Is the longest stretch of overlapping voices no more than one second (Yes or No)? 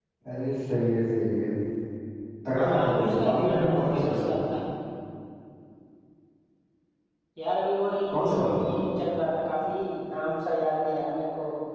No